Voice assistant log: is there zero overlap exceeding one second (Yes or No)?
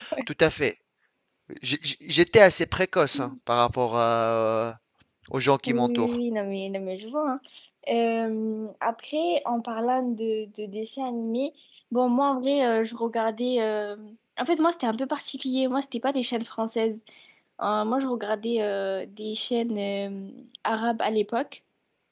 Yes